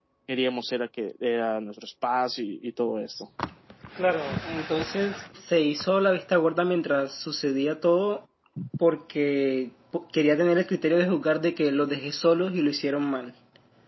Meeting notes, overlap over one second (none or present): none